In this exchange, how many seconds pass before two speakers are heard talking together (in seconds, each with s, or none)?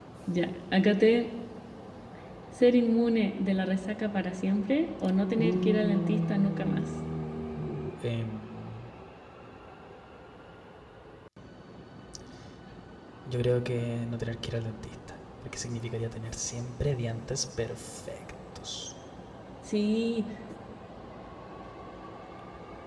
5.4 s